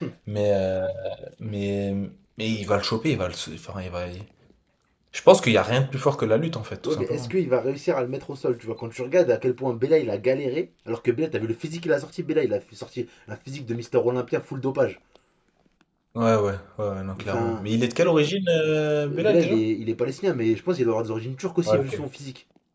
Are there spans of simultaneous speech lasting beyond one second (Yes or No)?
No